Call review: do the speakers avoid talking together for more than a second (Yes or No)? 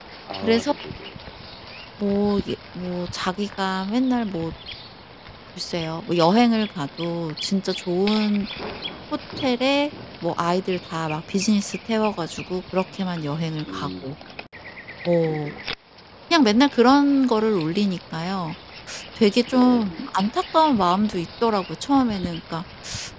Yes